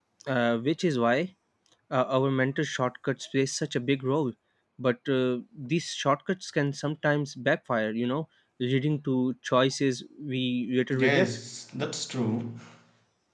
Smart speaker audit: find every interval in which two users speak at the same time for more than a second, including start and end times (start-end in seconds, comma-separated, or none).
none